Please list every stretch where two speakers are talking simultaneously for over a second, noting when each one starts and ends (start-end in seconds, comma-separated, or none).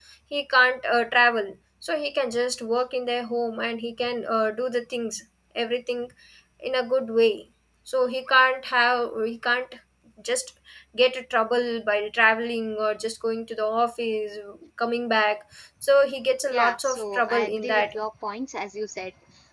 16.5-18.0